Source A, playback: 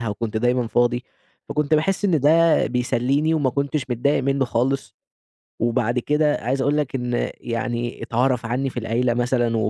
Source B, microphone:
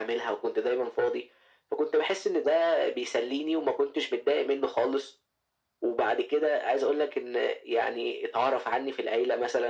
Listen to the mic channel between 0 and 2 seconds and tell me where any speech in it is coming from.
echo only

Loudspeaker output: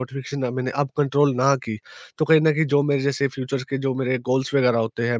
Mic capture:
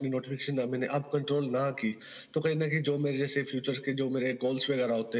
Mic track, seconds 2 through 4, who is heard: echo only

